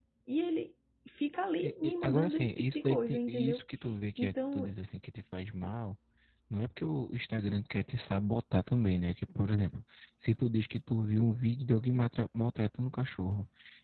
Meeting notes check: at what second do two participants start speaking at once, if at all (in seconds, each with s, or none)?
1.6 s